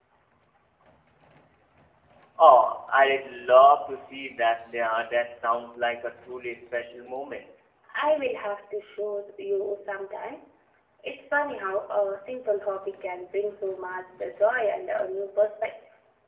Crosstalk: none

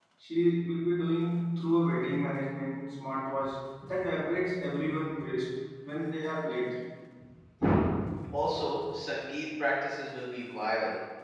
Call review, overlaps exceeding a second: none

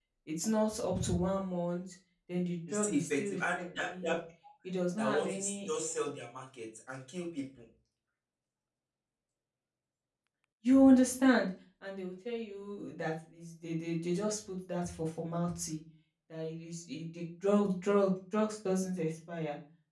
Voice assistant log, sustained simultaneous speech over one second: present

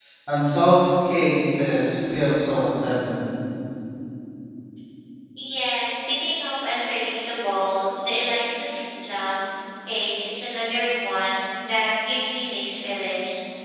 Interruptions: none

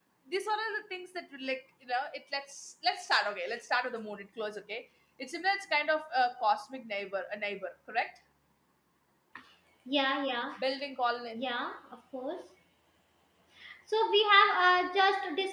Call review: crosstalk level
none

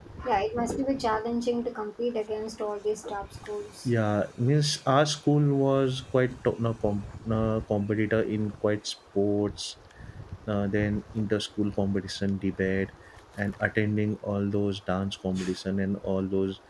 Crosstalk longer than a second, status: none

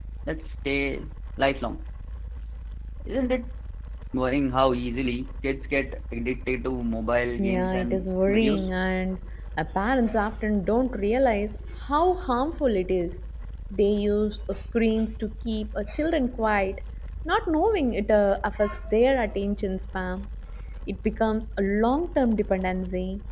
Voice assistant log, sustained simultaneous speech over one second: present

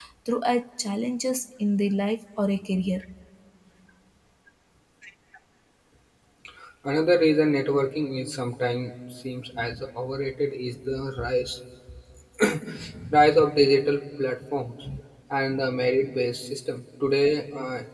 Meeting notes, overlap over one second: none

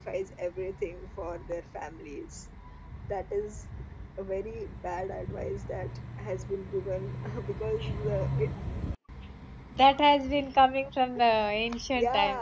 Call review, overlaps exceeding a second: none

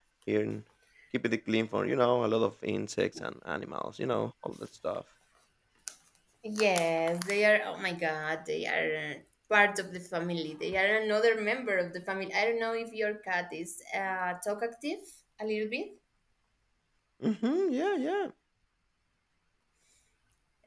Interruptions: none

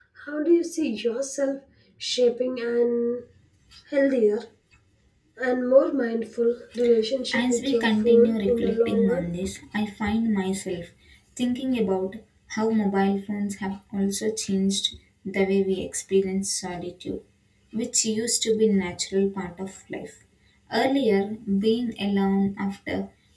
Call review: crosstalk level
present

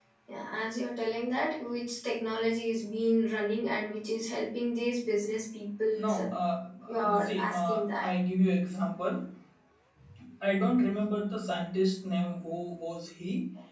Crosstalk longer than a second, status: present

